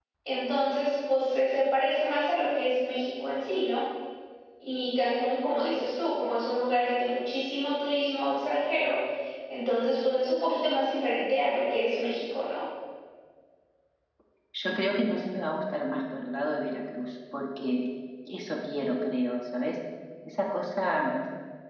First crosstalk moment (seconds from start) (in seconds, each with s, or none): none